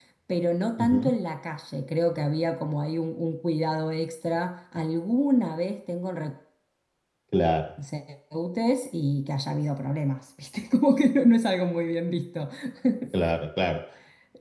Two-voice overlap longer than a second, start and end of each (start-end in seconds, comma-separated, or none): none